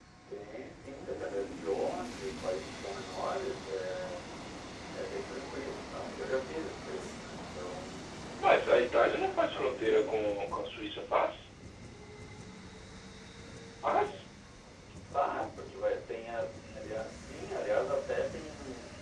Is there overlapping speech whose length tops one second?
Yes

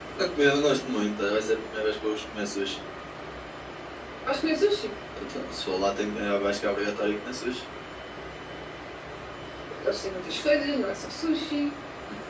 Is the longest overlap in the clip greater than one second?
No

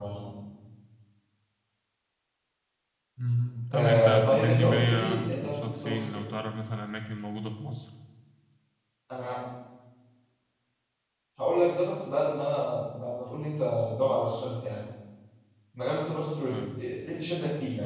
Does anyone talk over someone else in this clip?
Yes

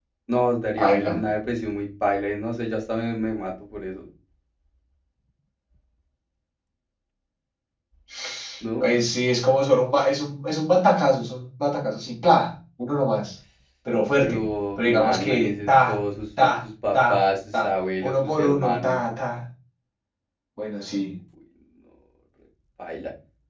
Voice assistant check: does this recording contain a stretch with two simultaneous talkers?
Yes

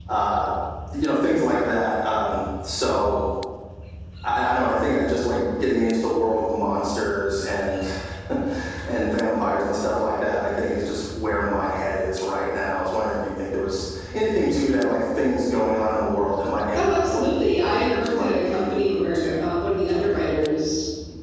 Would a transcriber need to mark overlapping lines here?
Yes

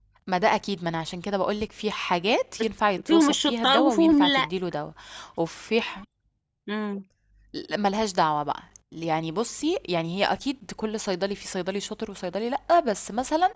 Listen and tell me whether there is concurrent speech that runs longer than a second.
Yes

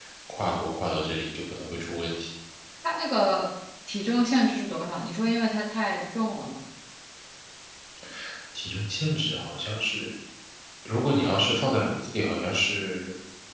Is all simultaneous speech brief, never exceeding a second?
Yes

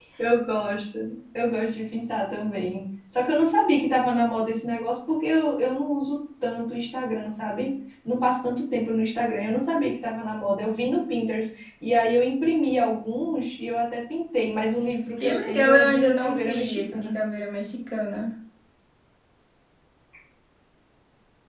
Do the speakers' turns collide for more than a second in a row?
Yes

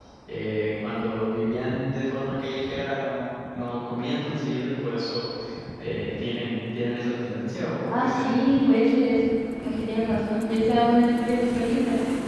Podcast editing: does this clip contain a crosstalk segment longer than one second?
No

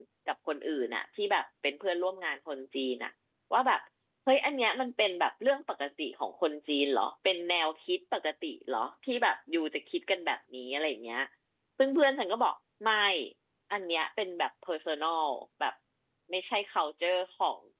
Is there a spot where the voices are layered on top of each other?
No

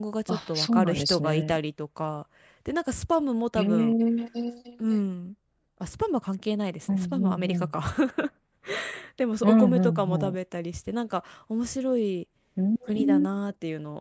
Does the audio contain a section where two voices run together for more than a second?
Yes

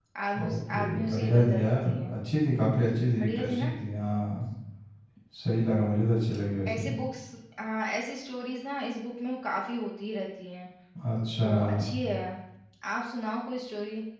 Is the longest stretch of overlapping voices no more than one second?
No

